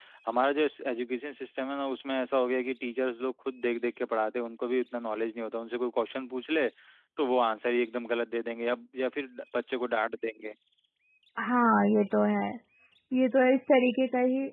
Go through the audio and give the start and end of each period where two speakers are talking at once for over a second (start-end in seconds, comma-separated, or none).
none